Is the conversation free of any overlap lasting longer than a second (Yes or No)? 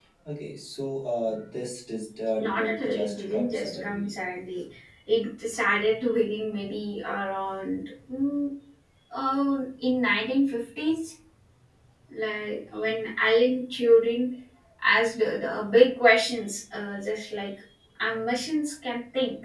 No